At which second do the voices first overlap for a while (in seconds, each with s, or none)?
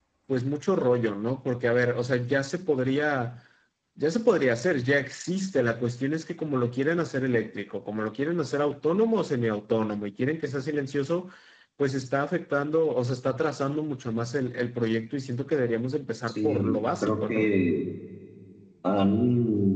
16.3 s